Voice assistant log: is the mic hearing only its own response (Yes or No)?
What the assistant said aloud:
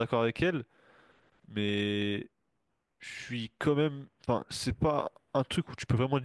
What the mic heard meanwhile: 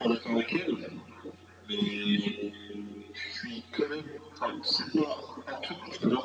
Yes